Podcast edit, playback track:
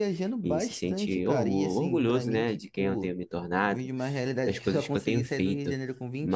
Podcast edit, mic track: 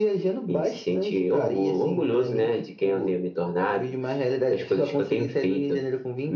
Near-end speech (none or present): none